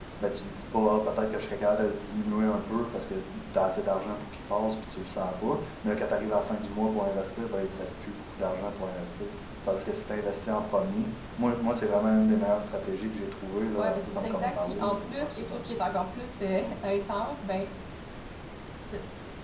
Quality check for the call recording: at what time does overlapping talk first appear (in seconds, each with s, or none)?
13.8 s